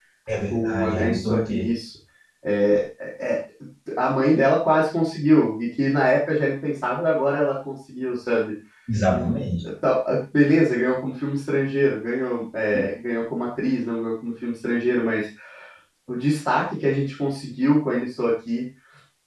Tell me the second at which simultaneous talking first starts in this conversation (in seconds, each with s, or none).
0.5 s